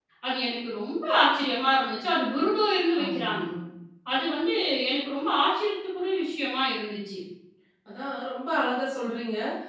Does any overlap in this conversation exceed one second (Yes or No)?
No